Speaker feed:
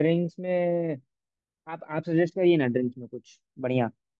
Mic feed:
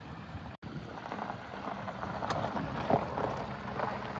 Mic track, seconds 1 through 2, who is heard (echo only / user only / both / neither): neither